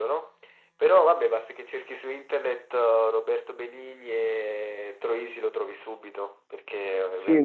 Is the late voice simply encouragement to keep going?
No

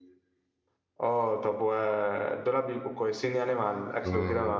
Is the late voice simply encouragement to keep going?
No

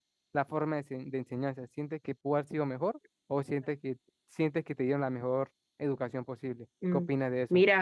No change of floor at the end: No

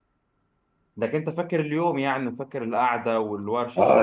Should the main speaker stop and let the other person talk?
Yes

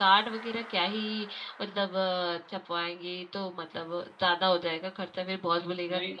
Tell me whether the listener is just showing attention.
Yes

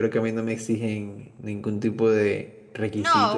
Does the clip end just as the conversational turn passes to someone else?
Yes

